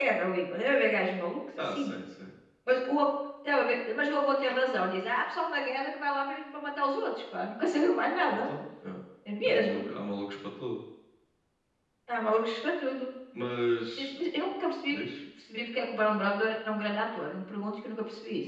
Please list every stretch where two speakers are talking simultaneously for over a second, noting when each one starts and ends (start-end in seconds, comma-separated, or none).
none